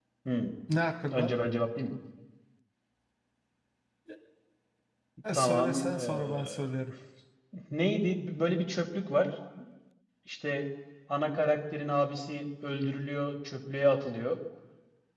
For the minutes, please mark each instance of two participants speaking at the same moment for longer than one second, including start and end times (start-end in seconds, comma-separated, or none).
5.3-6.7